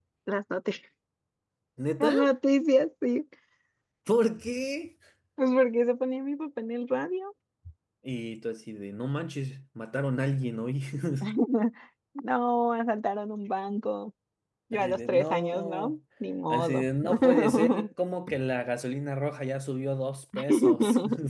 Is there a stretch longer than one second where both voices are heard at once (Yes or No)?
Yes